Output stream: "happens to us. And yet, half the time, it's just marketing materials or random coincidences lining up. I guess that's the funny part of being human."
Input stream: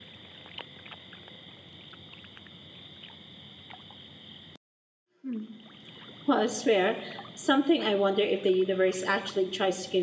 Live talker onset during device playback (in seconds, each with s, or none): 5.2 s